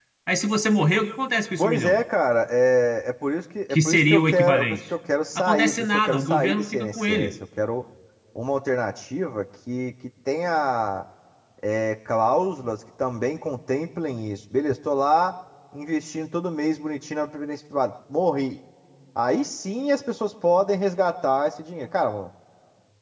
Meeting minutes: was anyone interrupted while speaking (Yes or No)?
Yes